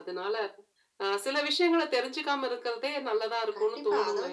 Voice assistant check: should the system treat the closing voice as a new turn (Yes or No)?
Yes